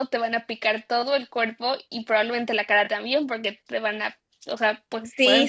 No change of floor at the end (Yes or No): No